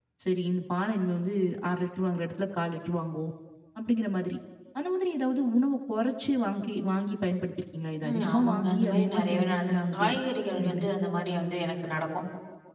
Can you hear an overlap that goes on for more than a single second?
Yes, from 8.0 s

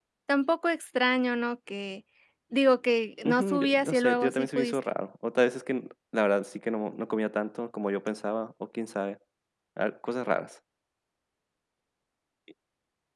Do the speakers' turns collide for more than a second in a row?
Yes, from 3.2 s

